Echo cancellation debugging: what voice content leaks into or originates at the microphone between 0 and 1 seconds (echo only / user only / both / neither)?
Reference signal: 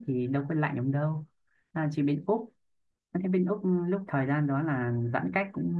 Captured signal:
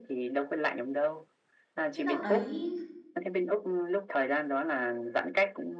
echo only